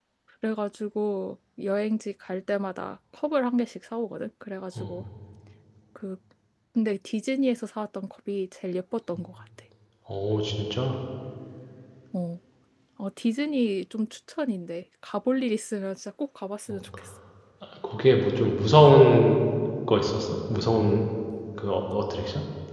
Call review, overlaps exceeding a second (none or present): none